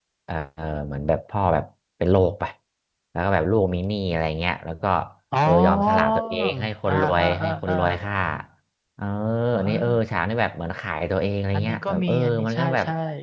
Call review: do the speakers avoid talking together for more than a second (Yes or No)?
No